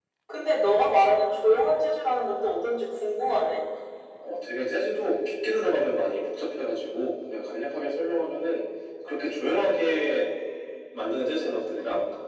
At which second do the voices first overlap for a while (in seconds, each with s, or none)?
none